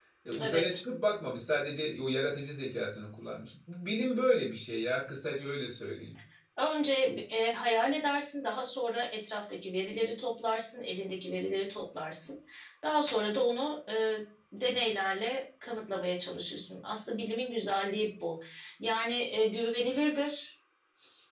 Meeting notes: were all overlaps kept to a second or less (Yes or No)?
Yes